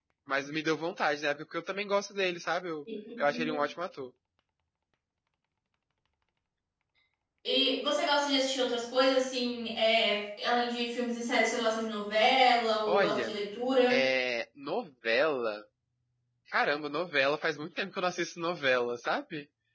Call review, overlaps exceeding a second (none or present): none